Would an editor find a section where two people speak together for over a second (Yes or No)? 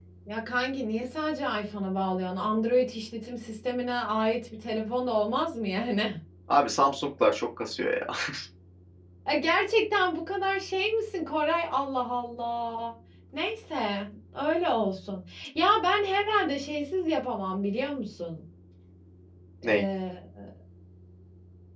No